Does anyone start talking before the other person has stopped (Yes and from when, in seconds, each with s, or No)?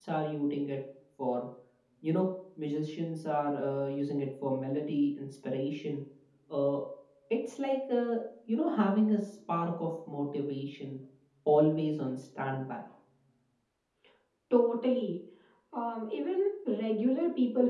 No